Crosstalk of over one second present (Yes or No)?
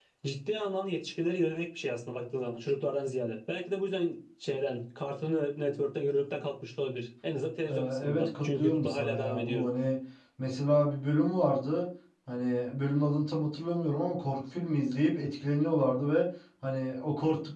Yes